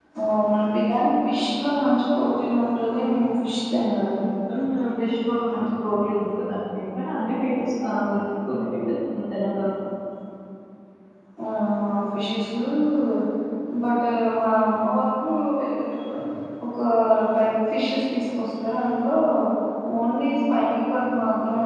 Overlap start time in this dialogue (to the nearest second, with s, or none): none